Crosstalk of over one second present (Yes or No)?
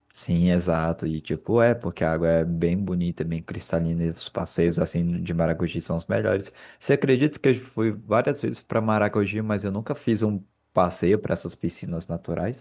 No